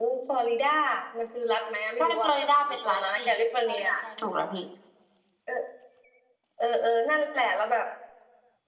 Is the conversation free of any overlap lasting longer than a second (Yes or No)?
No